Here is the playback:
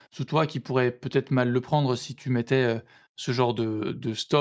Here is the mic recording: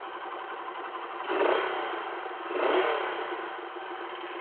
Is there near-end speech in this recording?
No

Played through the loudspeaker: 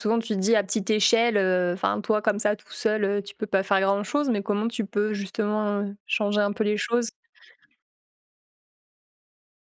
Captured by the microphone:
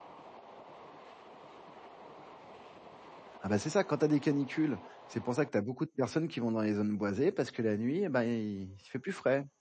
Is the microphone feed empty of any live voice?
No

